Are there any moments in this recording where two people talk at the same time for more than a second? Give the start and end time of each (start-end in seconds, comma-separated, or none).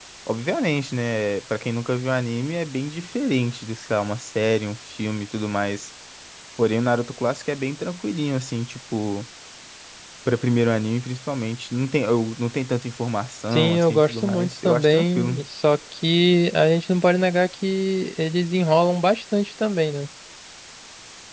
13.5-15.4